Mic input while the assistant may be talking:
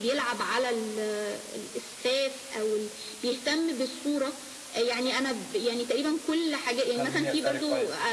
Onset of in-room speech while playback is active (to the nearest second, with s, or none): 7 s